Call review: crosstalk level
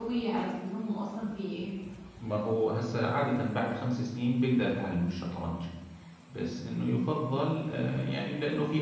none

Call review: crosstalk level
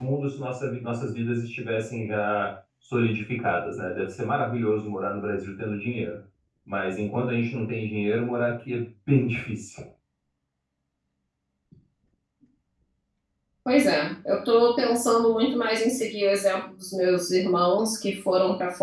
none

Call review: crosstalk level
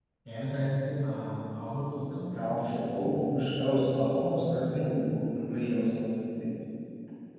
none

